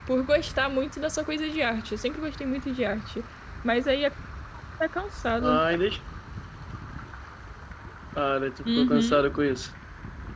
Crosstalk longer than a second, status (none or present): none